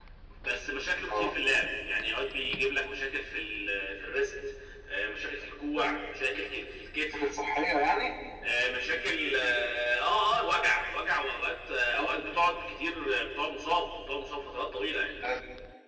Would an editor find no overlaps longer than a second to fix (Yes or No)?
Yes